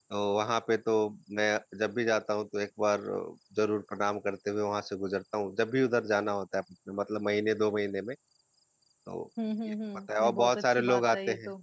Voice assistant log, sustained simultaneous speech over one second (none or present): present